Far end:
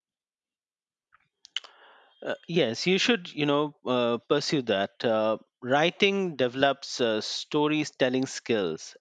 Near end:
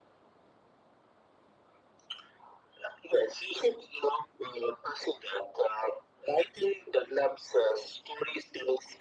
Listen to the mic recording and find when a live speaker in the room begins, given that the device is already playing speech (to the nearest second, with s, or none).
none